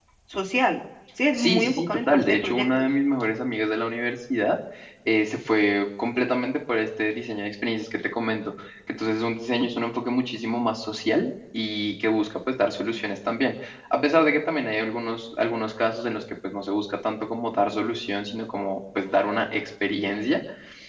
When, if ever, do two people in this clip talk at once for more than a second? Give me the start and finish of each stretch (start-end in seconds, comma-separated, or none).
1.3-2.9